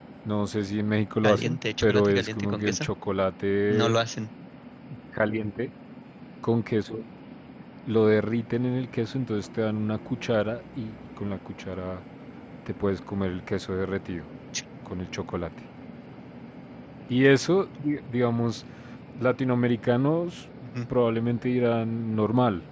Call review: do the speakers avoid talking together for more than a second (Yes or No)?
No